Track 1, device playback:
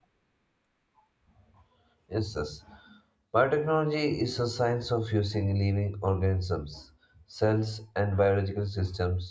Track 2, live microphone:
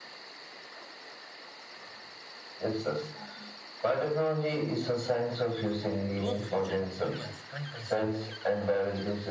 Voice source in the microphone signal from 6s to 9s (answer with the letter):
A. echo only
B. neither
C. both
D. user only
C